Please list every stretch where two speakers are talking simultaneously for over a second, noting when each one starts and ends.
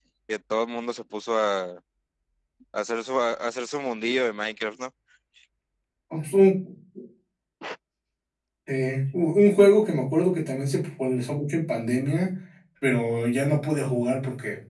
none

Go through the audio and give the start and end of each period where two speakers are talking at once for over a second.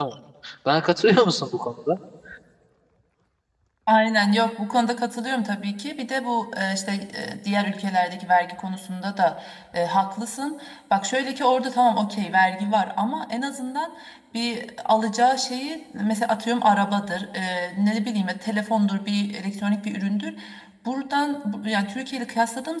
none

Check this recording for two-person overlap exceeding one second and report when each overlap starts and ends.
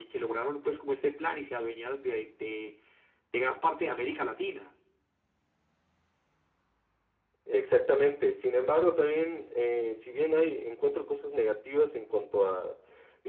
none

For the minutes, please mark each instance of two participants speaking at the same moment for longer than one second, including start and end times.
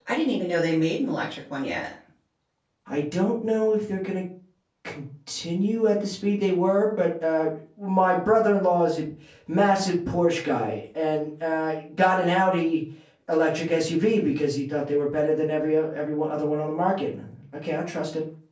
none

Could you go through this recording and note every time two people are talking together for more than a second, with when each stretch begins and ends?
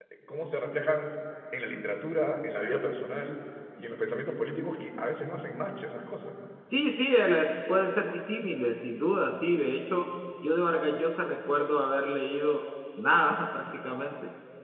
none

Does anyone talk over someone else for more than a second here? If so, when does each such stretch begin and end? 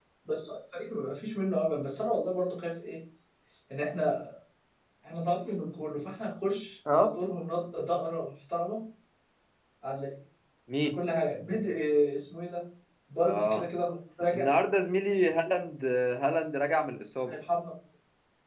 none

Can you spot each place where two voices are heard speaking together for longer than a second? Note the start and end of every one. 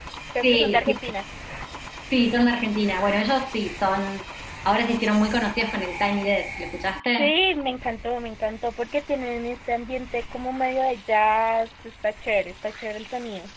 none

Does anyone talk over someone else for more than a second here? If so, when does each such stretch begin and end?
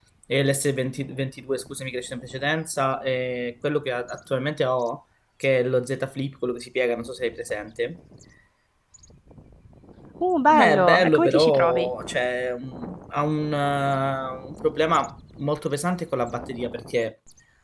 10.5-11.9

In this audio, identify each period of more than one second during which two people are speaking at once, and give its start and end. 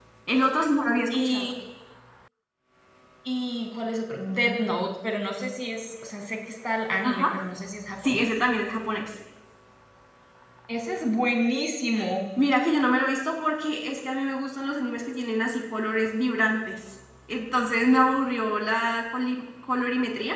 none

